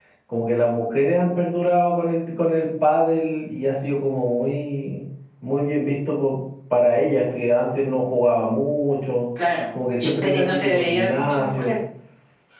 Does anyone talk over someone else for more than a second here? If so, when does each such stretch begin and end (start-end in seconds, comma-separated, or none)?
10.0-11.7